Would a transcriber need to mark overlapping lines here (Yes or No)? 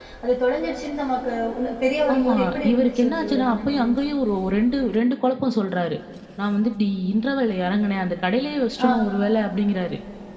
Yes